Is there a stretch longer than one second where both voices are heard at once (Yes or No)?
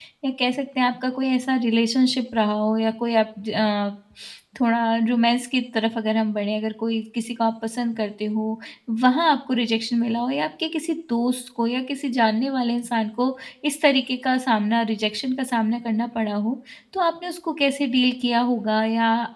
No